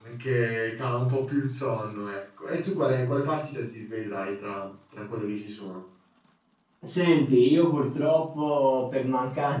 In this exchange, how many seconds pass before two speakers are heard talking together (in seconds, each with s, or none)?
none